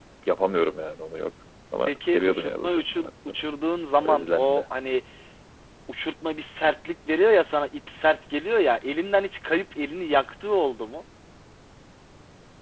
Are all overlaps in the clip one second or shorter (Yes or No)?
No